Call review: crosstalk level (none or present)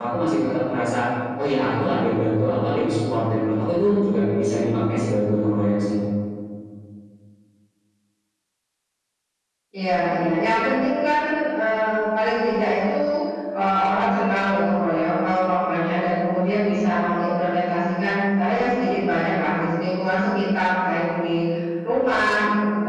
none